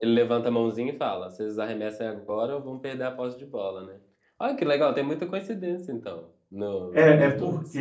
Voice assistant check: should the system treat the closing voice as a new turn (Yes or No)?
Yes